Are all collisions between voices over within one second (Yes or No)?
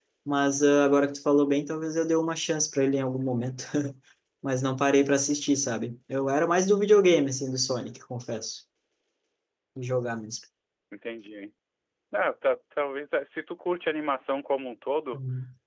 Yes